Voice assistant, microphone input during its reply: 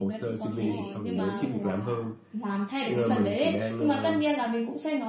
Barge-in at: 0.5 s

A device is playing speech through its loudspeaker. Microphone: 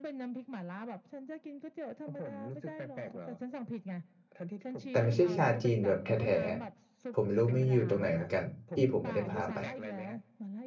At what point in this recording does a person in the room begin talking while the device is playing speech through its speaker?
4.9 s

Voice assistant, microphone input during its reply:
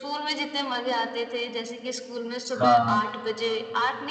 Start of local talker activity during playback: 2.6 s

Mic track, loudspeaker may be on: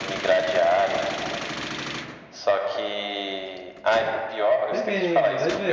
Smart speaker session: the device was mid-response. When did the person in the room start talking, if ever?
4.7 s

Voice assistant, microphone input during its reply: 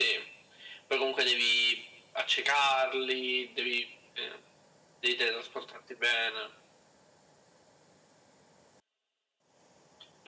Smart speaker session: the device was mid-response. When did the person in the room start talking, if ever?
none

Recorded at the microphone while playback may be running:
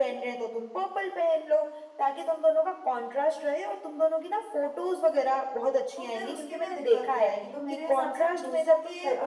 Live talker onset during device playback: 5.9 s

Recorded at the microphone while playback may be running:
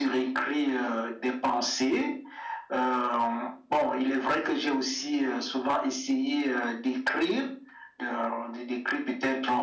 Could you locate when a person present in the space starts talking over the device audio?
none

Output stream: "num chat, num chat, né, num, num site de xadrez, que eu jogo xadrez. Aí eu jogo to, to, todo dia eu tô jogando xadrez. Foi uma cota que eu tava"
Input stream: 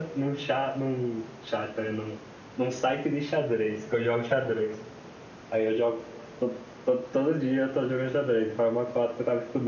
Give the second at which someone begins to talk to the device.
none

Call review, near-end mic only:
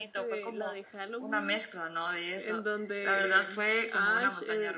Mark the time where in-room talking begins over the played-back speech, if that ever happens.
none

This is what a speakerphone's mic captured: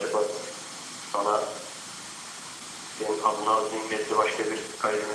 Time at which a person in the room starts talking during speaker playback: none

